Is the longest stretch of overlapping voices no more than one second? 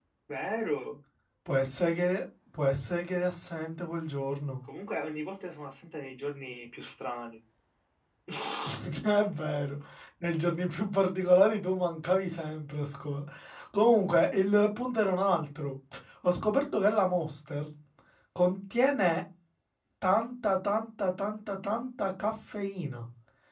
Yes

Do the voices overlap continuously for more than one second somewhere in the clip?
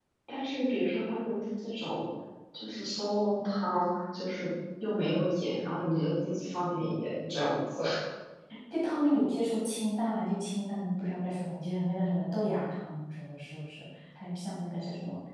No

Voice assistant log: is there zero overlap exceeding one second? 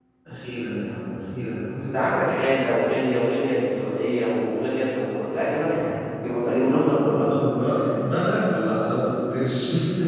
Yes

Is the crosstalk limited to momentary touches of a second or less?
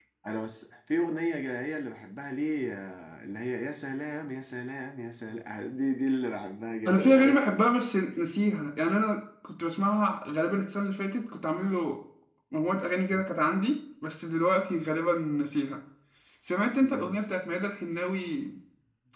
Yes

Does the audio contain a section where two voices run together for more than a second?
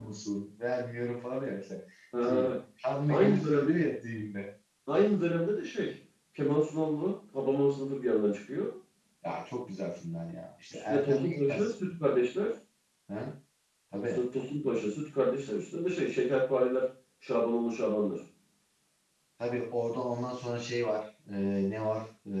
Yes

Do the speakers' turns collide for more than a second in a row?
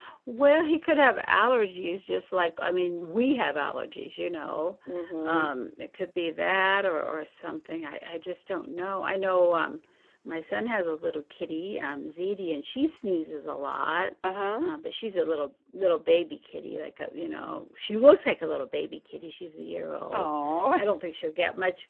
No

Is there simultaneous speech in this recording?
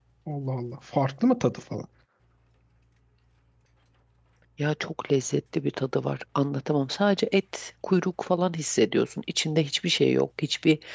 No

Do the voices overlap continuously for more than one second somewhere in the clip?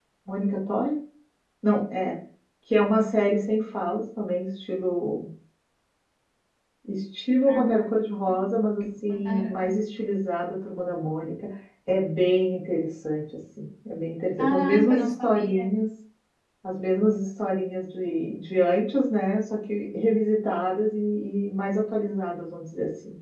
Yes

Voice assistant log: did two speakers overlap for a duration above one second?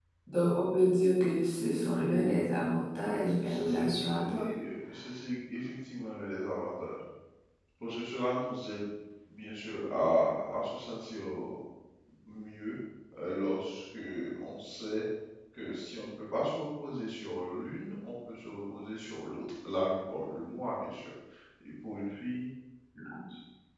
Yes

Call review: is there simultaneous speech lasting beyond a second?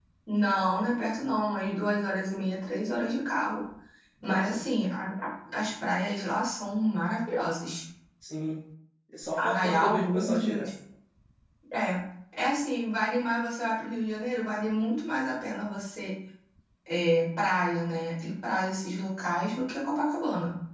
Yes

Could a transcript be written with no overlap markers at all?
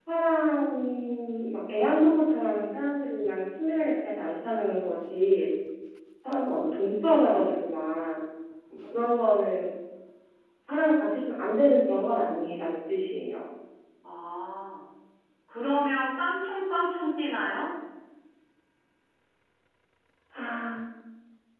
Yes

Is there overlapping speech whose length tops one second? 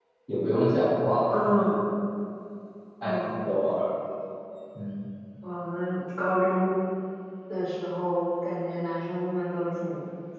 No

